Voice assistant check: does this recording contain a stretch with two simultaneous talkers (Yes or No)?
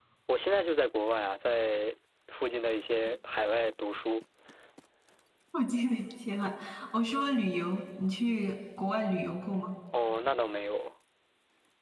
No